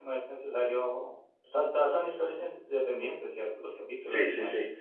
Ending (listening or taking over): taking over